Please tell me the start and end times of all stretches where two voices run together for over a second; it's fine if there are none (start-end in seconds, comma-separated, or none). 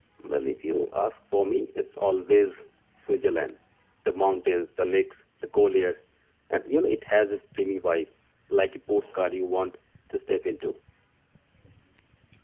none